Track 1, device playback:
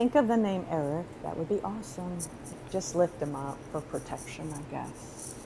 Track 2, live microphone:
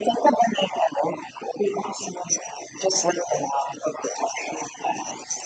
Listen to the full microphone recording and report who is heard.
echo only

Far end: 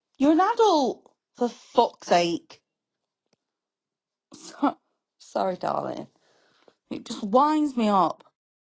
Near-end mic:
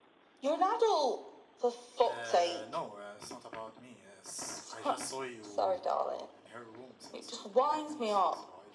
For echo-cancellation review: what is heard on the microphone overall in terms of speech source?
both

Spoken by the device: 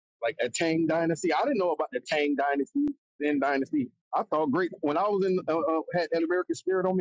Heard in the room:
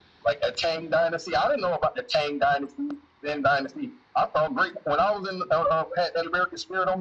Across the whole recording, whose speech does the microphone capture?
echo only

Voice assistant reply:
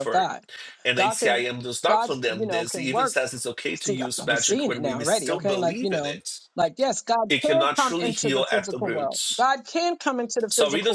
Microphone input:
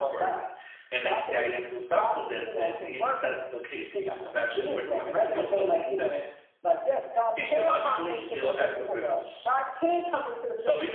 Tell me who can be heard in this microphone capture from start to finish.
echo only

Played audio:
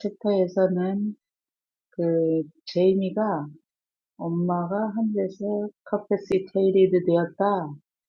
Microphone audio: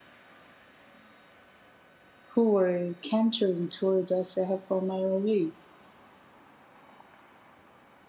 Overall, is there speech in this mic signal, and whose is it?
user only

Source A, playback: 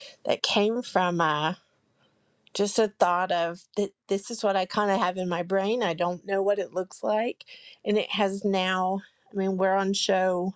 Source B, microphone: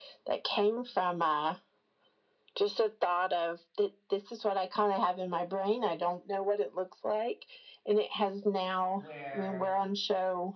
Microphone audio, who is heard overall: both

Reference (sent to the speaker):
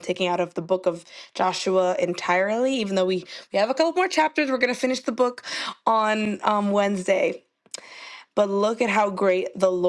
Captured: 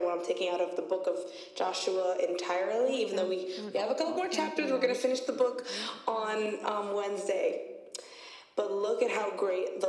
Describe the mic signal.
both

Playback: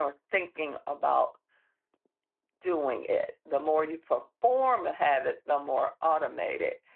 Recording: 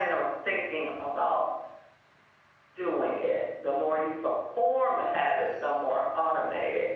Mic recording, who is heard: echo only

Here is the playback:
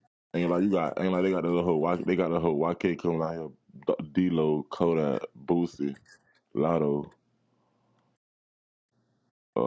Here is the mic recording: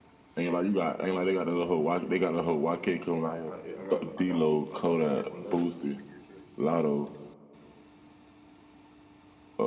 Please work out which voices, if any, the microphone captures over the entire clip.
both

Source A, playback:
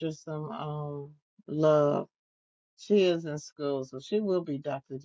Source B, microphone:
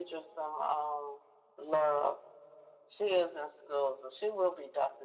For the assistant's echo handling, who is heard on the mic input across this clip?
echo only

